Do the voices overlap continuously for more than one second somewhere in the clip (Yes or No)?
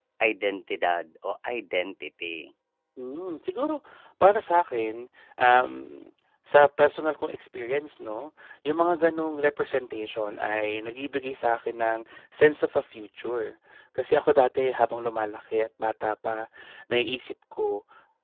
No